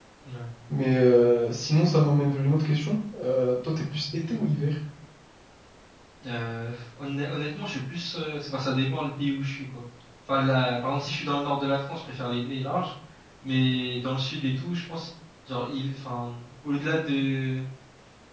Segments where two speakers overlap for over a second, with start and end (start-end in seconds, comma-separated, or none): none